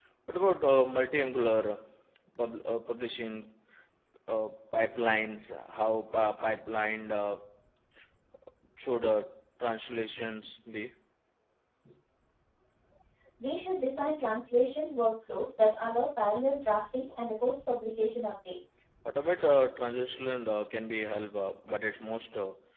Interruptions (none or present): none